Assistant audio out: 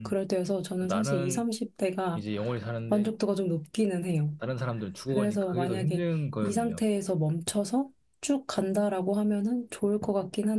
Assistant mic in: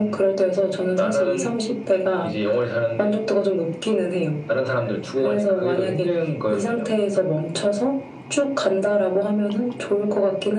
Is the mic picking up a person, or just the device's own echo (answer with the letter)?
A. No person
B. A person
A